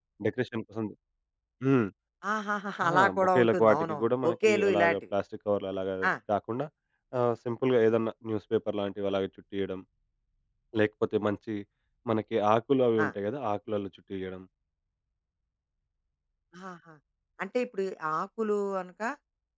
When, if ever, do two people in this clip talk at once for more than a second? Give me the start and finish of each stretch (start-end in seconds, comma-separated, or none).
2.8-5.0